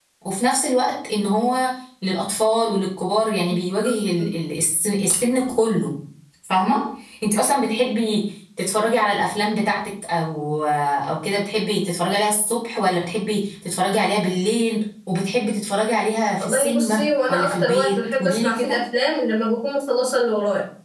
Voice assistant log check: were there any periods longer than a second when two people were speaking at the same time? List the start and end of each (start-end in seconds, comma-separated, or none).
16.4-18.8